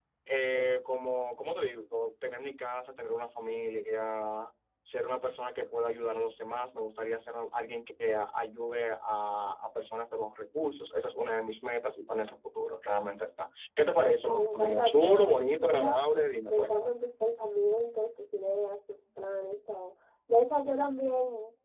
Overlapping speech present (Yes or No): Yes